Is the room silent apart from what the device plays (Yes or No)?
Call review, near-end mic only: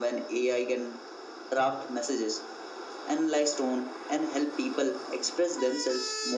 Yes